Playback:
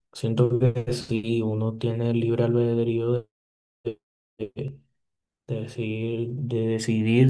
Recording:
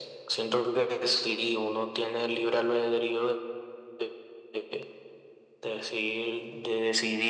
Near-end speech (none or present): none